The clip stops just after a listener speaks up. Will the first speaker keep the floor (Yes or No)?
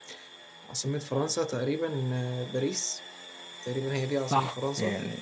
No